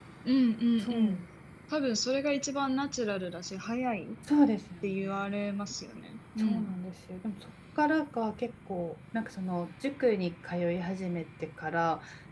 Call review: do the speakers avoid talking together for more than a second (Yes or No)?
Yes